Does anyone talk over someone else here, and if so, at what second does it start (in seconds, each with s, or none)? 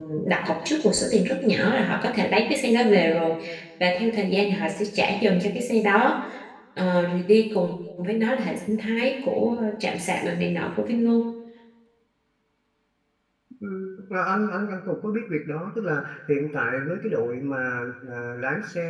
none